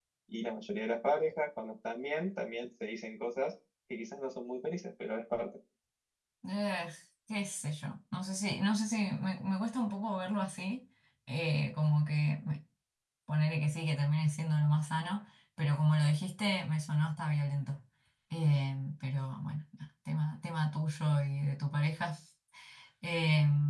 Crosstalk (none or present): none